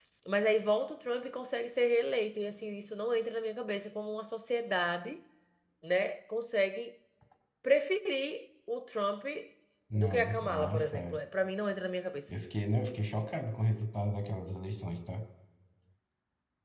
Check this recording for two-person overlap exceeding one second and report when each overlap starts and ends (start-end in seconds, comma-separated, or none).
9.9-11.2